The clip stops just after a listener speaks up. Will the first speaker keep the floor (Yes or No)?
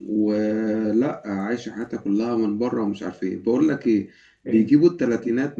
Yes